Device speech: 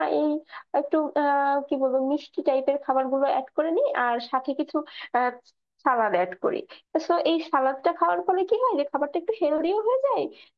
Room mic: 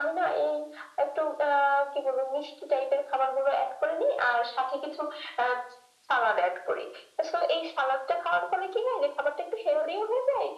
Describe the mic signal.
echo only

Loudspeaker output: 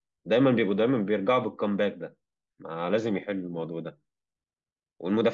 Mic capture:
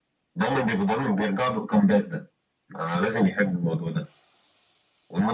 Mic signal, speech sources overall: echo only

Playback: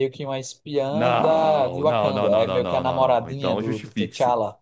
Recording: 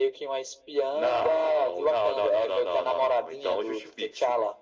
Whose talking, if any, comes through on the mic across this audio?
echo only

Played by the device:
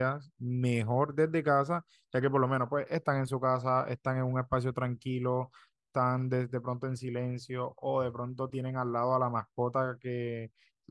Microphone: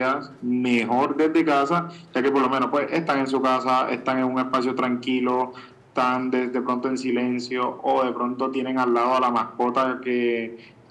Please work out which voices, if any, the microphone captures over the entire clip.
echo only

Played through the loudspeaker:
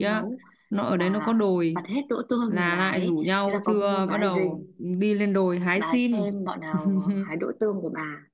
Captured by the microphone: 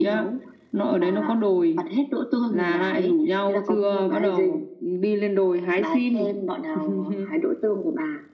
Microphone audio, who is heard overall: echo only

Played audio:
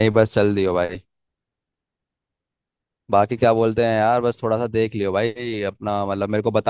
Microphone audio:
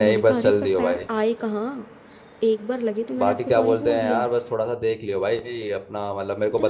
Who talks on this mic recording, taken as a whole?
both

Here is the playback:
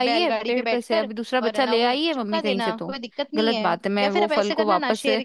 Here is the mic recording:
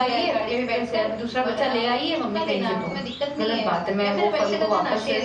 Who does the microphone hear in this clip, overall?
echo only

